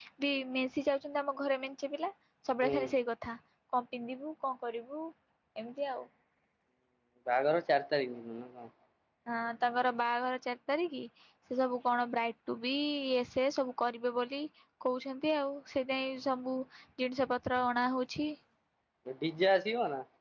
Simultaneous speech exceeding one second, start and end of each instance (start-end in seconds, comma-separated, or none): none